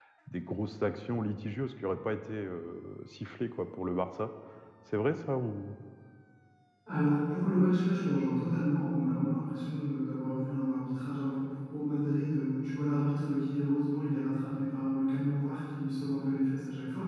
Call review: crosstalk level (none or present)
none